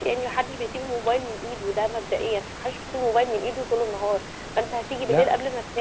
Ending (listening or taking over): listening